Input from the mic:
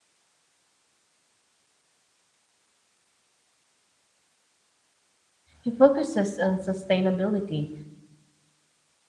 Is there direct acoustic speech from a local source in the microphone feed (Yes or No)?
Yes